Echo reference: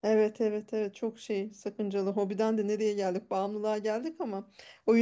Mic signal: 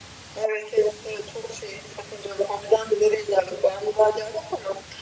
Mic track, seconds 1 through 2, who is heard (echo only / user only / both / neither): echo only